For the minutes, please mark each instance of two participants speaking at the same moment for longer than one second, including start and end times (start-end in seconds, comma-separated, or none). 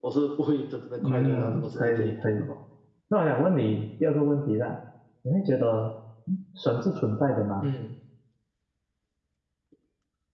1.1-2.5